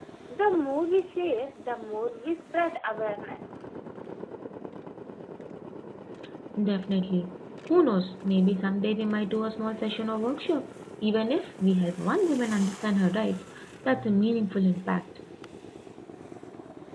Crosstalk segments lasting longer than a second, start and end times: none

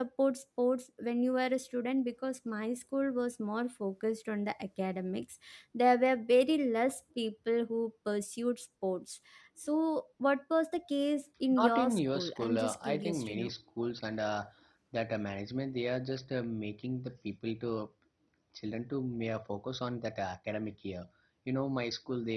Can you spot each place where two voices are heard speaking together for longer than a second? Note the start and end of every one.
11.6-13.5

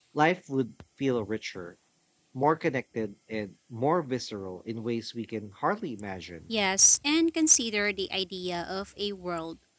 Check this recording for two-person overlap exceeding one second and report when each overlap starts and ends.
none

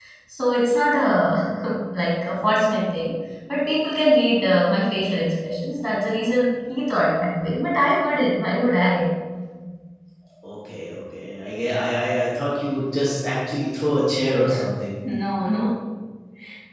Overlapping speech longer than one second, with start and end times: none

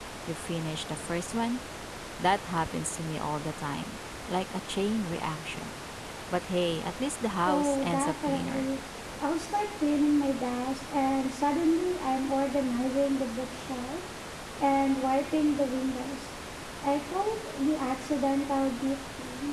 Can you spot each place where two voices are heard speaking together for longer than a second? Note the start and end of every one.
7.4-8.7

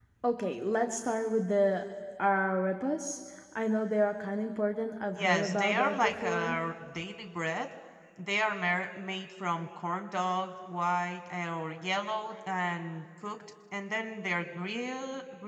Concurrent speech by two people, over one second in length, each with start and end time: 5.2-6.6

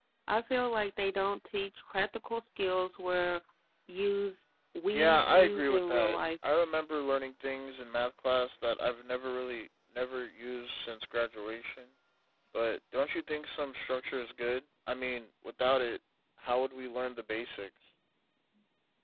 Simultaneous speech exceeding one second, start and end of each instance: 4.9-6.2

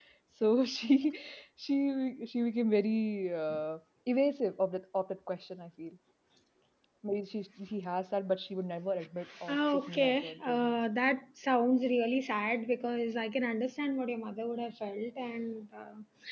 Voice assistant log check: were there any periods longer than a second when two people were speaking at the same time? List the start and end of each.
9.5-10.7

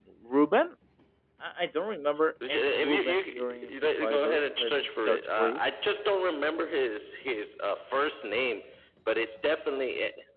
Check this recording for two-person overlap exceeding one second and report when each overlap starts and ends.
2.5-5.5

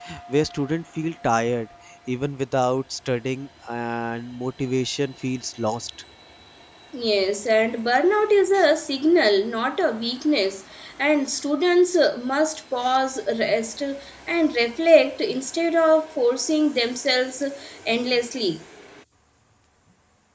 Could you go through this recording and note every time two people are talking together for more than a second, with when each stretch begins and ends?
none

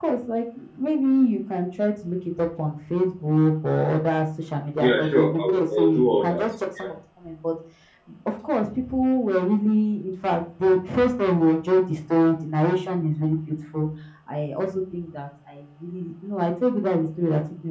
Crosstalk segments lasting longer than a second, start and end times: 4.8-6.4

